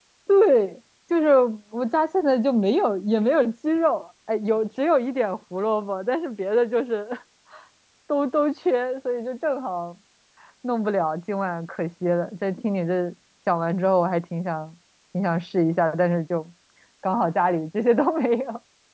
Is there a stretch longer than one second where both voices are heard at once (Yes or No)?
No